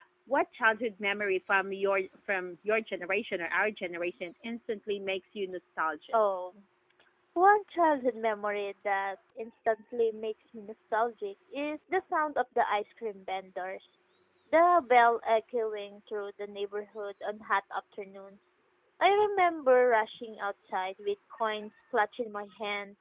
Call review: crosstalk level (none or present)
none